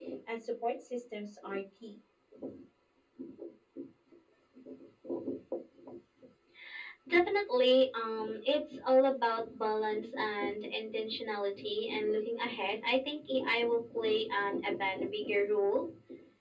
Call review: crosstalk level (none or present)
none